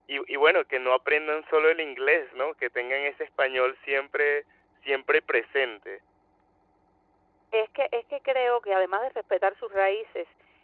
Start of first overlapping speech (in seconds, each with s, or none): none